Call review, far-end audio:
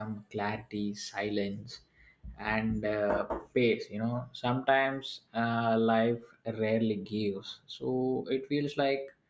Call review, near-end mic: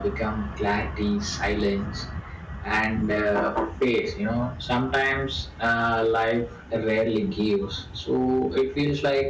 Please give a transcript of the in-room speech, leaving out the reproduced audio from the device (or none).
none